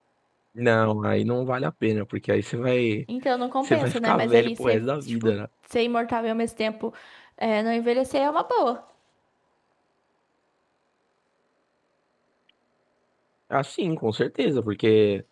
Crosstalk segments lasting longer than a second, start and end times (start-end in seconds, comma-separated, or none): 3.6-5.3